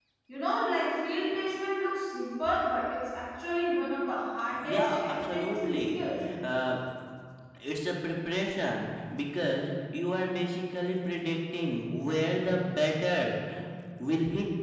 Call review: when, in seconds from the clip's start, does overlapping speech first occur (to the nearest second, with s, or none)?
5 s